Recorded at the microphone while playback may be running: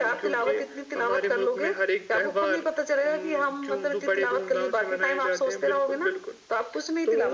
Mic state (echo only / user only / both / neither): echo only